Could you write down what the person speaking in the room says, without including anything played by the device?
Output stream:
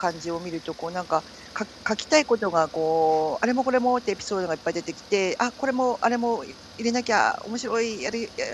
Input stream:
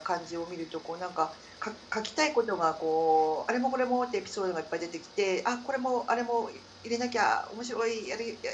none

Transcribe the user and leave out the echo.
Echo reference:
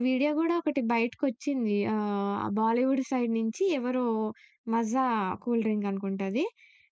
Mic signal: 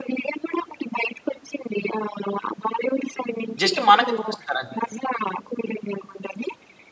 జస్ట్ మనకే చూపిస్తారు అంతే.

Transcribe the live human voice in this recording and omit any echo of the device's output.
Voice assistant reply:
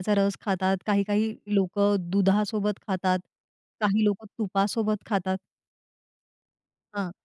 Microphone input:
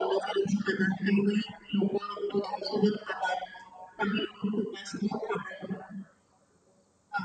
none

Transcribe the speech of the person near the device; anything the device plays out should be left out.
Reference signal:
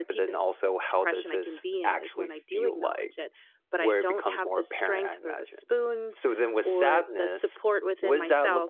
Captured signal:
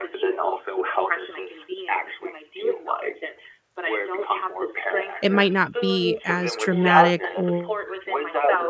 it might not be as dramatic or

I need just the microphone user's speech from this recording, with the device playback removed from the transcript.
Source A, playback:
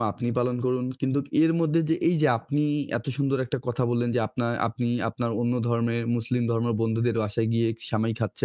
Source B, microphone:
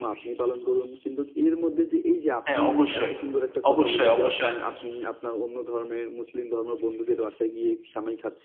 হ্যাঁ, অবশ্যই। অবশ্যই, অবশ্যই।

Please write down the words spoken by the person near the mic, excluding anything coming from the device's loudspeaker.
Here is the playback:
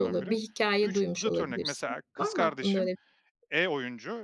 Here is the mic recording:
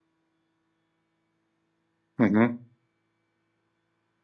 Hı hı.

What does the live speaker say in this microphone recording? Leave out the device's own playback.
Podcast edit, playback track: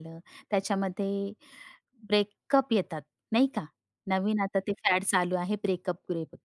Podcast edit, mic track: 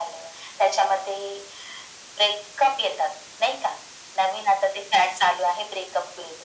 none

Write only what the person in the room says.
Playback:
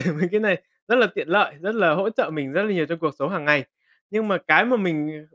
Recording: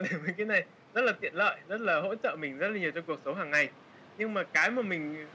none

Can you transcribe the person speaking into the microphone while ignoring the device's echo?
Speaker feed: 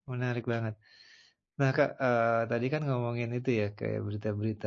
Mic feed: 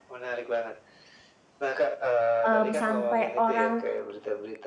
hmm, sampai orang,

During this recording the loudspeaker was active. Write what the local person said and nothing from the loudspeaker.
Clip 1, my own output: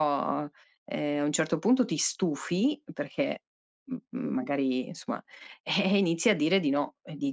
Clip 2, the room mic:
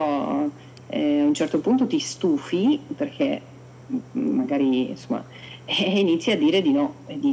none

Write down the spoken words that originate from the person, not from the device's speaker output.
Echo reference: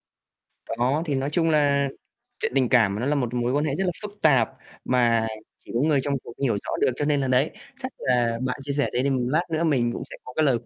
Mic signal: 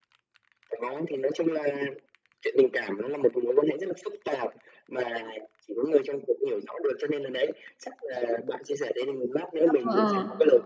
Ờ, ờ, ờ.

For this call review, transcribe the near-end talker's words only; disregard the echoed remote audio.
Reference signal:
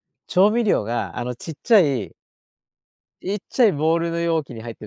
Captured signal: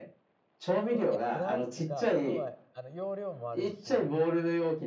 こだいや、こだわりっていうか、要は、あの、要領も悪いし、

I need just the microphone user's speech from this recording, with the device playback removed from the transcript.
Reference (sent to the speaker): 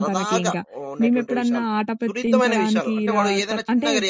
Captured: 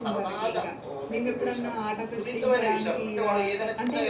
none

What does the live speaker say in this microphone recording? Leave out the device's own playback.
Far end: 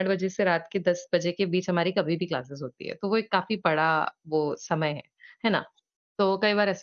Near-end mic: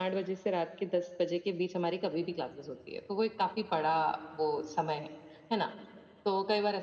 none

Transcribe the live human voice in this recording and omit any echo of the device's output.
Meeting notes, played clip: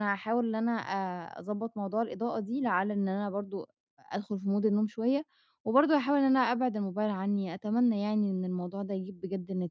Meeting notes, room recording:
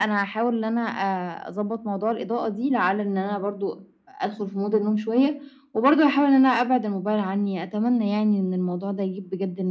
none

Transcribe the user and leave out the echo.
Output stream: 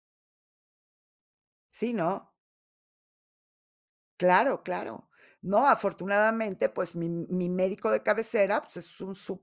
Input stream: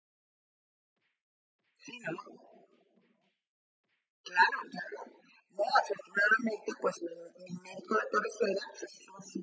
none

